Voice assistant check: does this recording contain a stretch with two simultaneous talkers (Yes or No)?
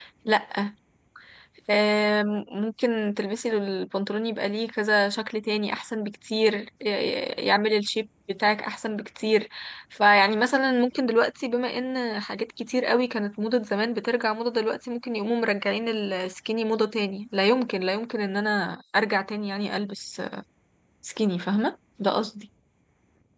No